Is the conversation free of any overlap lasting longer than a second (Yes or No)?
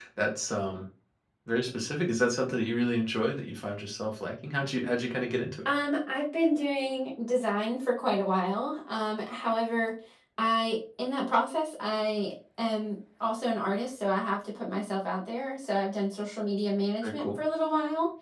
Yes